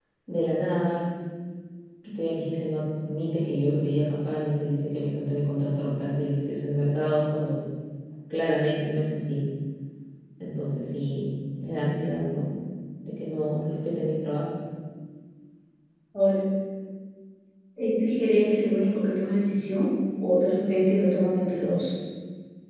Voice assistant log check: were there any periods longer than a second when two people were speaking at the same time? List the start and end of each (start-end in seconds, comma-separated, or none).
none